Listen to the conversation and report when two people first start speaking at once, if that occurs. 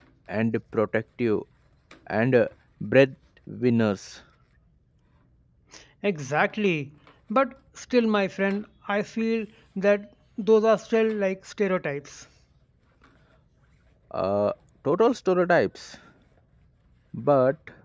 none

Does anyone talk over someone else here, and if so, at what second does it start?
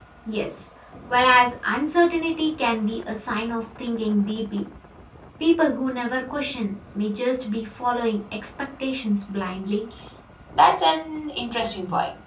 none

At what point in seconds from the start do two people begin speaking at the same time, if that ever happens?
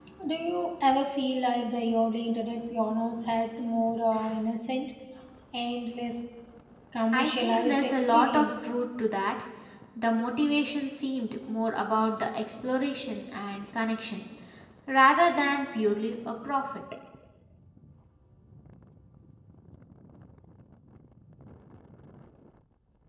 7.1 s

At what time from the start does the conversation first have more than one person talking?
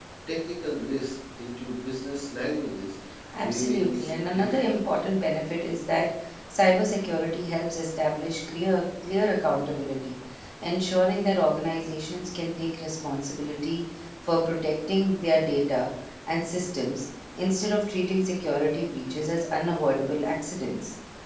3.4 s

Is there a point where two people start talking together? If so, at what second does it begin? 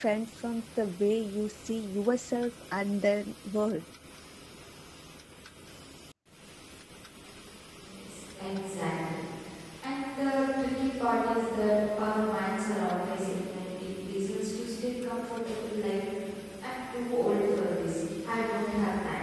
none

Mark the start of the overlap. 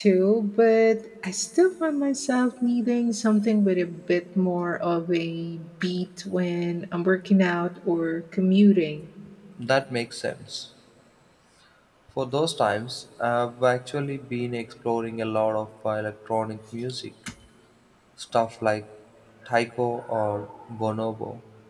none

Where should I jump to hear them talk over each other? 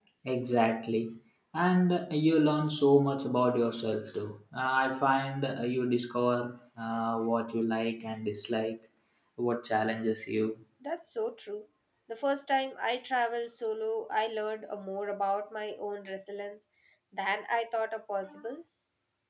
none

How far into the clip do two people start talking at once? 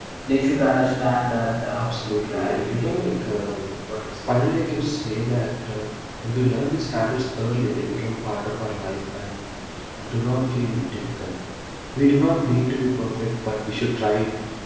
1.8 s

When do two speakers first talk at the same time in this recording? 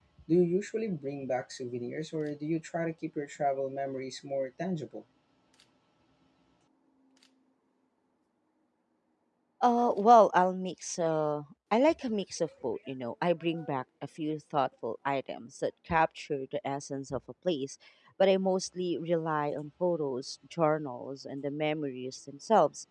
none

